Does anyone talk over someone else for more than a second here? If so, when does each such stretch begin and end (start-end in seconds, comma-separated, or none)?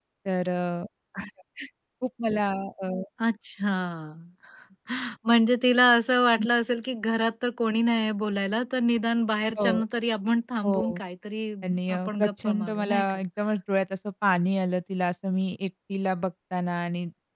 11.9-13.2